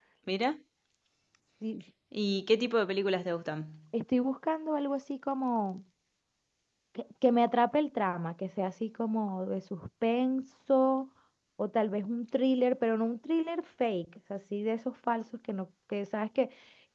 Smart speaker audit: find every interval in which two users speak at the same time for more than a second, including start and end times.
none

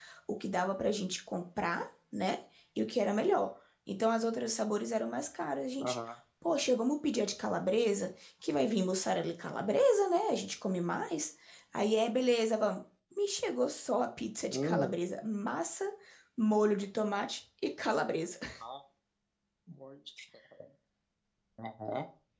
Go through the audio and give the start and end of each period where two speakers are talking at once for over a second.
none

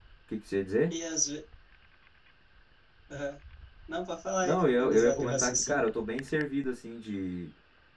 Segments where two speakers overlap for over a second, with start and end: 4.4-5.8

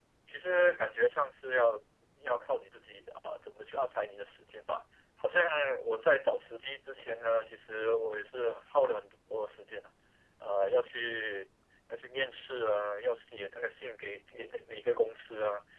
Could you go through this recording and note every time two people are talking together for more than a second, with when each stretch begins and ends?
none

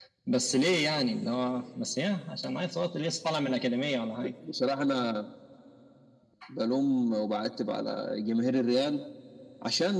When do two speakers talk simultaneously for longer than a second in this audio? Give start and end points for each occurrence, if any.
none

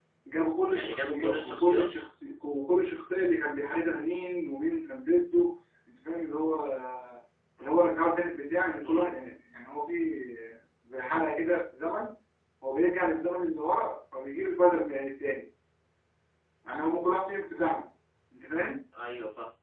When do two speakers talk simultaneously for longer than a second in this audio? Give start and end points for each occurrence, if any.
0.6-1.9

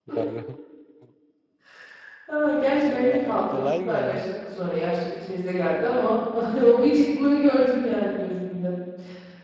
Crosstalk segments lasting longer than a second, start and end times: 2.9-4.3

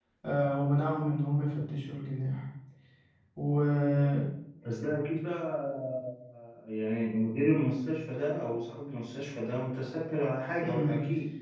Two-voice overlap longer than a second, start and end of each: none

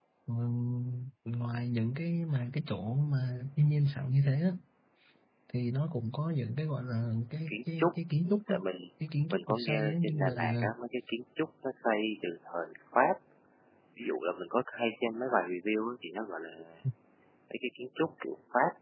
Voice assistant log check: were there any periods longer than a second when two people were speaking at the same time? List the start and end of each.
9.3-10.6

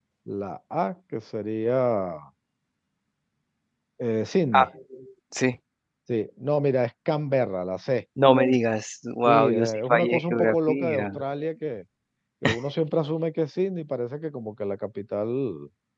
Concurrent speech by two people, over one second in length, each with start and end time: 9.2-11.1

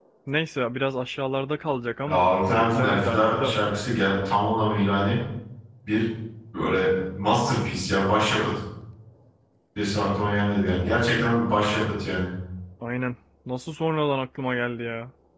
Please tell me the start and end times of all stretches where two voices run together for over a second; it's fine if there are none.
2.1-3.5

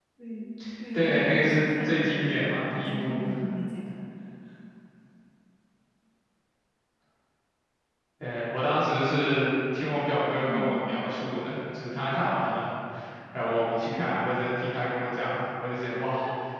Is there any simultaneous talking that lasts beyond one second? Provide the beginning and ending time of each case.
0.9-3.2

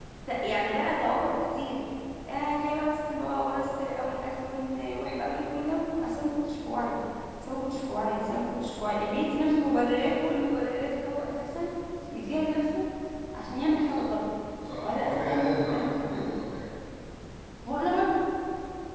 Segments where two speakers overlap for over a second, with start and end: 14.8-16.3

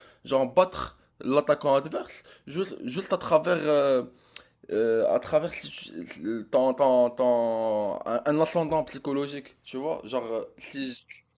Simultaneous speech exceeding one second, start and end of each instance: none

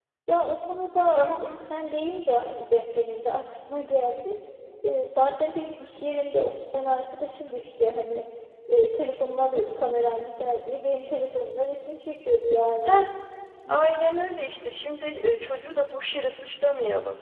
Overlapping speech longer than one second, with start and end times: none

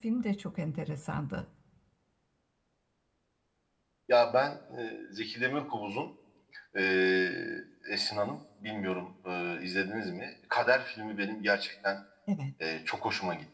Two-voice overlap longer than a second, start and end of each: none

